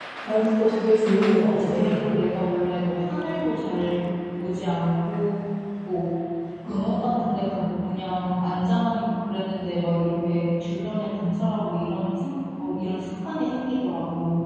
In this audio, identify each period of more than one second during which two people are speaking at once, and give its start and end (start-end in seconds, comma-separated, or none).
none